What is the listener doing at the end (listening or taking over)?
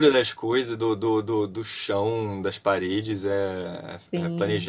listening